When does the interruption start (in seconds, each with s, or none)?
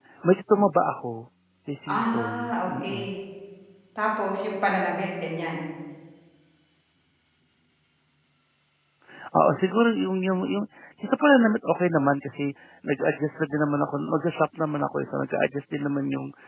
1.9 s